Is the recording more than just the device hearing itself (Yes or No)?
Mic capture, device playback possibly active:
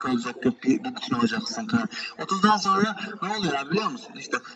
No